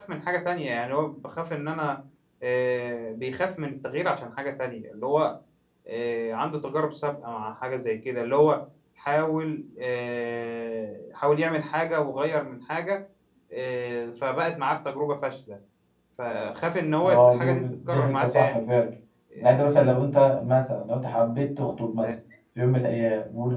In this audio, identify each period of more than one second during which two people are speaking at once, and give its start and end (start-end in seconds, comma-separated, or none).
17.1-18.7